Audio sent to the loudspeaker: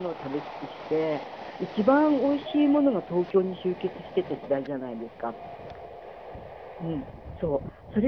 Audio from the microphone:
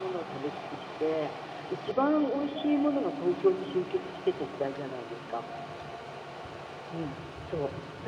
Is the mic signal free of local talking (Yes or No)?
Yes